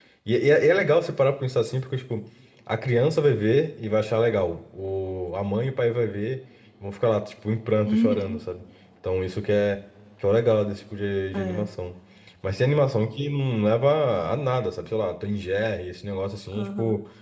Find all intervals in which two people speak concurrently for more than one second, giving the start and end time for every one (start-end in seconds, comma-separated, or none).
none